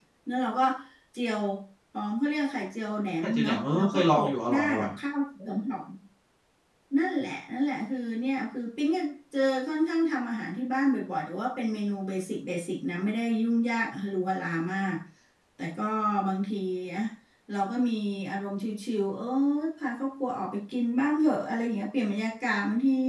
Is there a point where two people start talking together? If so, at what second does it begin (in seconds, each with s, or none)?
3.2 s